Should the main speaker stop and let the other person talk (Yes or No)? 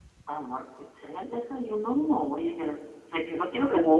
Yes